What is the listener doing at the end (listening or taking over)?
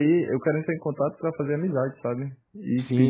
taking over